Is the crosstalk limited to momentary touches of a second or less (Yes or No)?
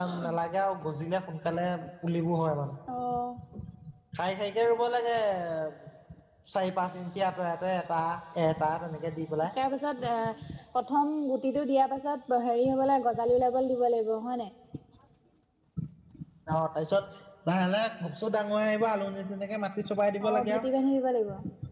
Yes